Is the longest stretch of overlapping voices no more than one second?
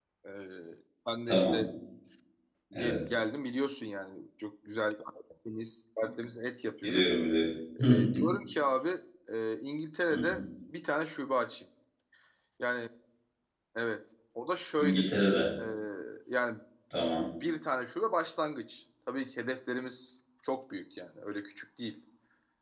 Yes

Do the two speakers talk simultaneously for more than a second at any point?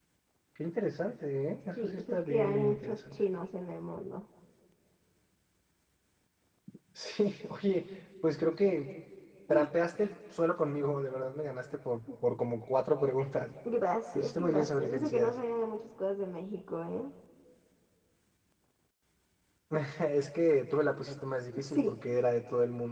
Yes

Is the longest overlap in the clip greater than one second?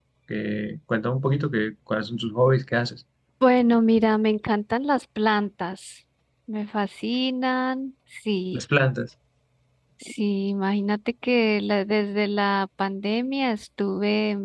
No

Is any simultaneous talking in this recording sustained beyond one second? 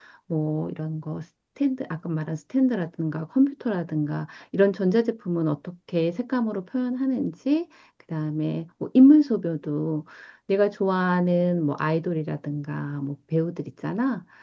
No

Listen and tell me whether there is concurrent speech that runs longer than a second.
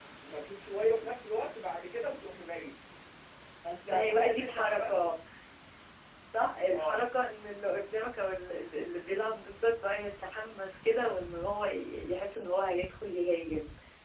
Yes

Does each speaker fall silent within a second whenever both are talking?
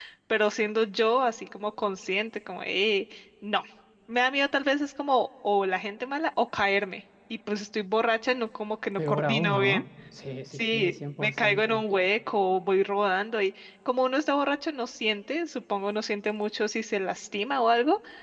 No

